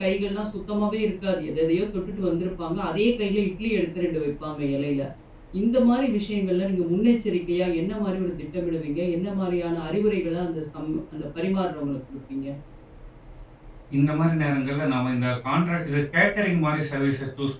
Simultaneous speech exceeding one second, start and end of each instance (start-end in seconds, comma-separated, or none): none